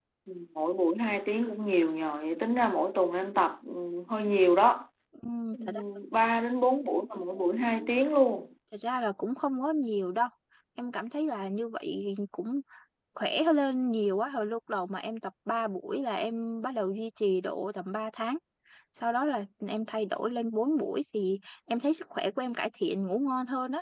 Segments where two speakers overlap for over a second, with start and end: none

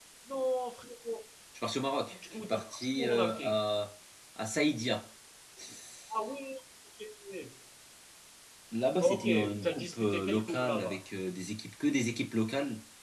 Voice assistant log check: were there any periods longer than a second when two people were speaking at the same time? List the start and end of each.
2.1-3.5, 9.0-11.0

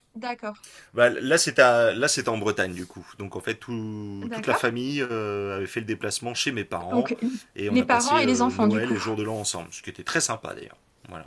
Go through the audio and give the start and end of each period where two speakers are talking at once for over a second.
7.7-9.0

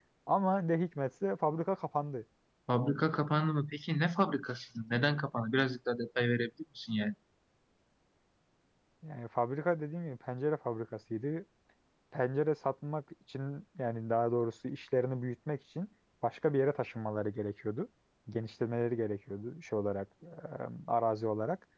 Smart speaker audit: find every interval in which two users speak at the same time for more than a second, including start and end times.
none

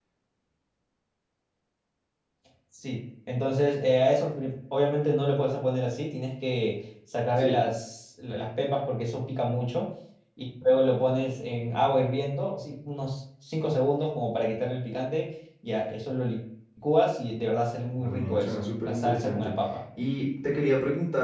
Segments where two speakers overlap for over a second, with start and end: 18.0-19.5

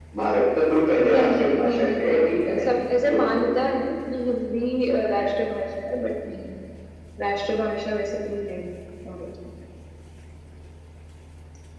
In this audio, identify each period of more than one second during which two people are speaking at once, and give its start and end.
1.0-3.8

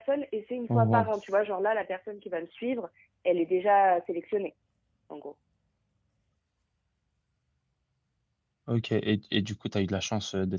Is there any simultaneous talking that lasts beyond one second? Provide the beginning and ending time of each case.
none

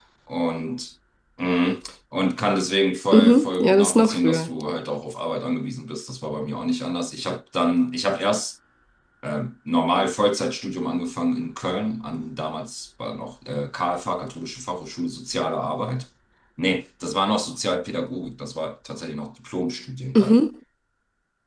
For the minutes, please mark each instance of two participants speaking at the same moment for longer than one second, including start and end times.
3.1-4.5

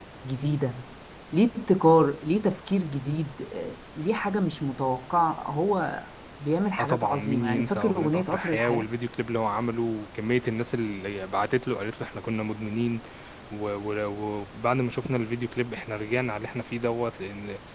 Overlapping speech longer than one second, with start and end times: 6.8-8.9

